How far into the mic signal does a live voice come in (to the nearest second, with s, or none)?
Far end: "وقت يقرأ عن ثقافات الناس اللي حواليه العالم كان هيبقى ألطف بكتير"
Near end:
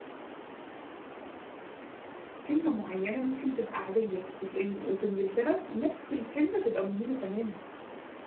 2 s